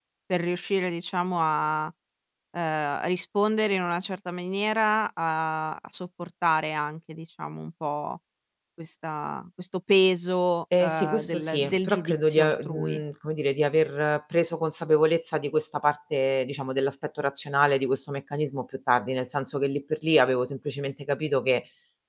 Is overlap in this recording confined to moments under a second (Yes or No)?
No